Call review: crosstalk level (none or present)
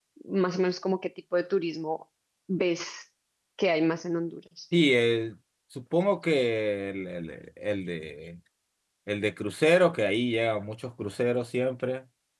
none